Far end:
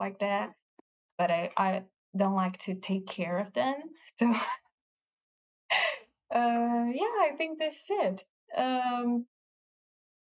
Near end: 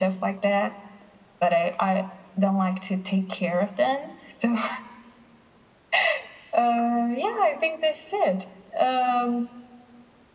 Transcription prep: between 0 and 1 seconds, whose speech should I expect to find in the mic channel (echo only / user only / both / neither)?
echo only